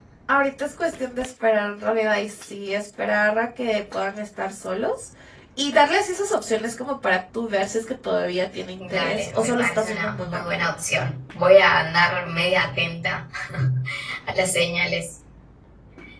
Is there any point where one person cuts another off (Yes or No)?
Yes